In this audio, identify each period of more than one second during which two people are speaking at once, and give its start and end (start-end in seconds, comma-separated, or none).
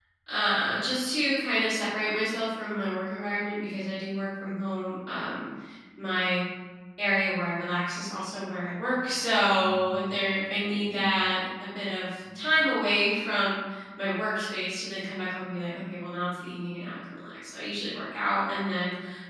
9.5-11.2